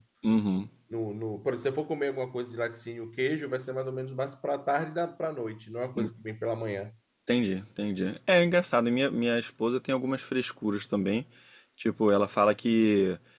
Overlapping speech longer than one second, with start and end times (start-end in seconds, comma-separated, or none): none